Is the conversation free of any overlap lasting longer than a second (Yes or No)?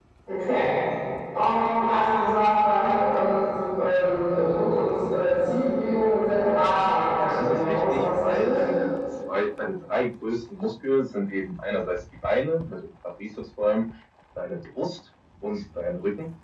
No